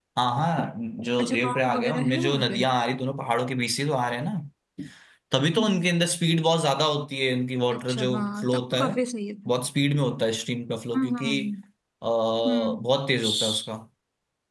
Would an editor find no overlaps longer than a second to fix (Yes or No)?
No